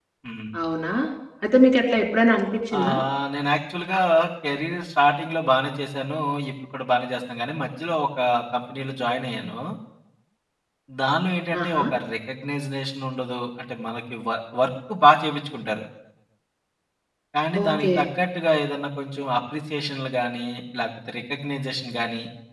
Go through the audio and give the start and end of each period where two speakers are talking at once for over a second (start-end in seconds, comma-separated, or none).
none